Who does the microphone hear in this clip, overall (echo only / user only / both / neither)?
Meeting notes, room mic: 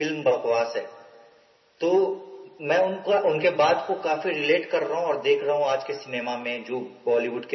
echo only